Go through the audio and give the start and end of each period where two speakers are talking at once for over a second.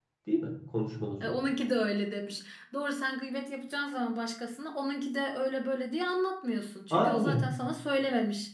none

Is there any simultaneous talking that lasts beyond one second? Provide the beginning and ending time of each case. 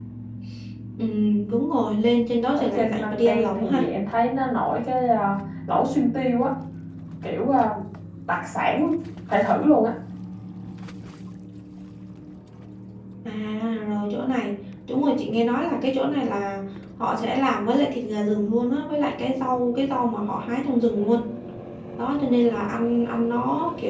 2.5-3.9

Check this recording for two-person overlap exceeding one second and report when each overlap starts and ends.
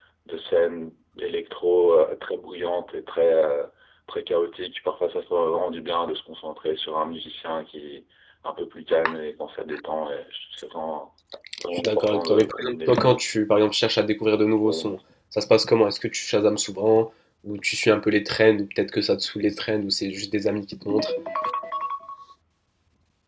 11.7-13.2

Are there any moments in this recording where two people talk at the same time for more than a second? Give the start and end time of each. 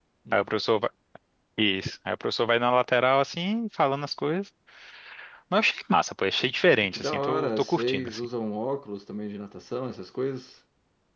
6.9-8.2

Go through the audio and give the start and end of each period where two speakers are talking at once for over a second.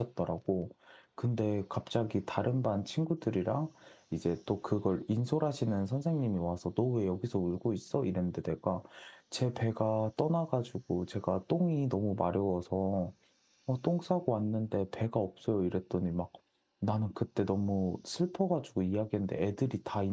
none

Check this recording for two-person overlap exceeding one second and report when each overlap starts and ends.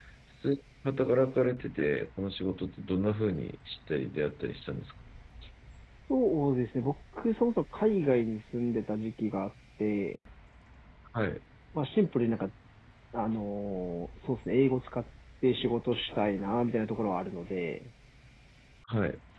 none

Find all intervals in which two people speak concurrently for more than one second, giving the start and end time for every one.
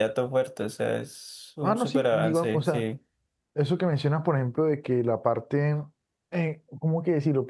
1.6-2.8

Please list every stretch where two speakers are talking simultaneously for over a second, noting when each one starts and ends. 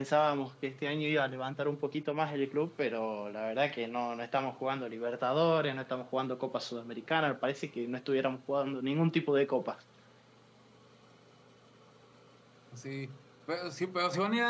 none

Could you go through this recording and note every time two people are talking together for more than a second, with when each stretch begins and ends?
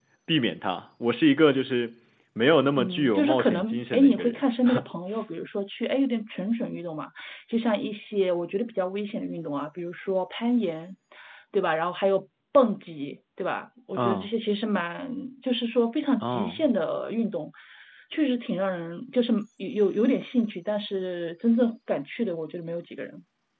2.7-4.4

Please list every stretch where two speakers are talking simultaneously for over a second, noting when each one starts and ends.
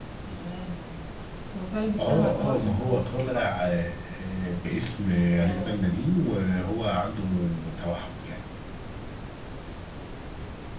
2.0-3.5

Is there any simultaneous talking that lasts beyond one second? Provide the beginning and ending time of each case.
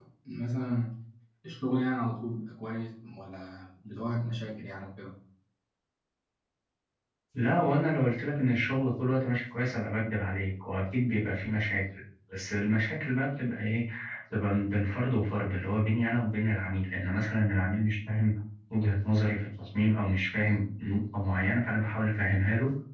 none

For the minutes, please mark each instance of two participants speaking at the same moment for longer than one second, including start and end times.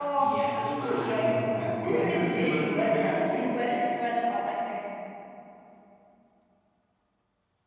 1.5-3.2

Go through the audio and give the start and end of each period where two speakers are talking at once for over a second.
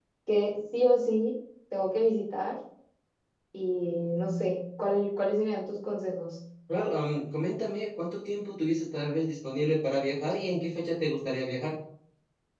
none

